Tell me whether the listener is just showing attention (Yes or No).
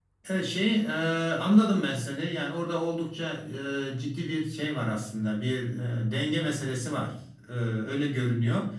Yes